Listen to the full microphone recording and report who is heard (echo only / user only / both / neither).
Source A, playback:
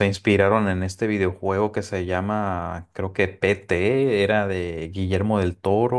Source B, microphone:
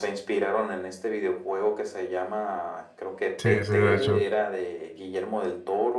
both